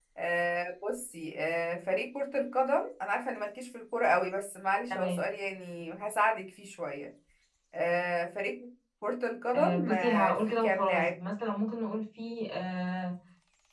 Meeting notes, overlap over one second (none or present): present